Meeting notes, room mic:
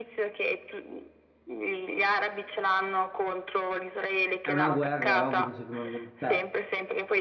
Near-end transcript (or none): è una guerra, è ovvio che ci rimangono. Cioè,